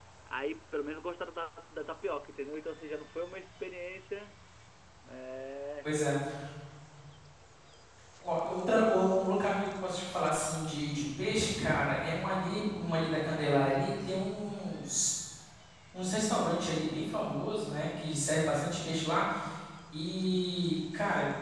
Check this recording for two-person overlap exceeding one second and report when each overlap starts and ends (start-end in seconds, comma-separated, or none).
none